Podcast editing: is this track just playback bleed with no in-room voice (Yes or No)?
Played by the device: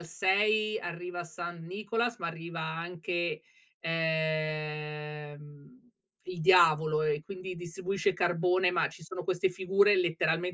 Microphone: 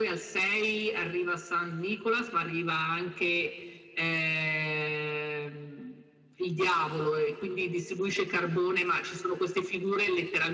Yes